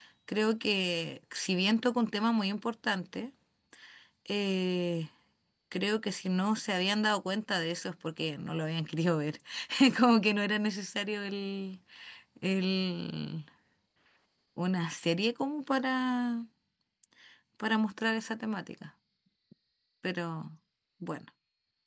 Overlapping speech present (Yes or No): No